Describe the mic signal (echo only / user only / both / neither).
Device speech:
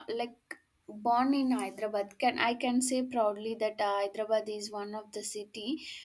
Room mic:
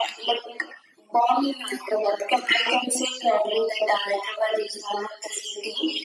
echo only